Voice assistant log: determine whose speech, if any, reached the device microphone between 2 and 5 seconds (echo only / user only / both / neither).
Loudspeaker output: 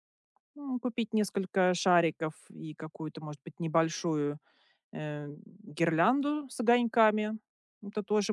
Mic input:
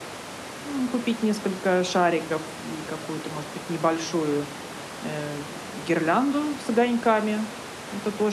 echo only